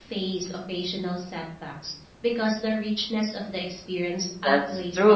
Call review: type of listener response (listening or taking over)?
taking over